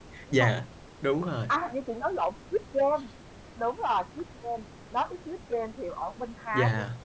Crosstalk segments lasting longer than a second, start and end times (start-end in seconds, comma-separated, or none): none